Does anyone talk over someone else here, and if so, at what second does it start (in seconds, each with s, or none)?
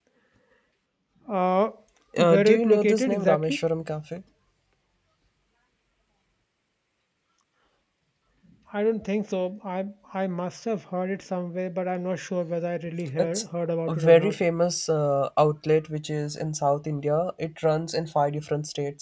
2.2 s